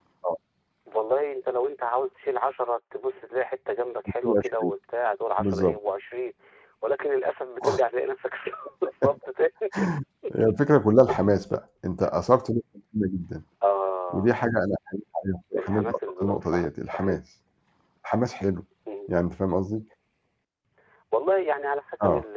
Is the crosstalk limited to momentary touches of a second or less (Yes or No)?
No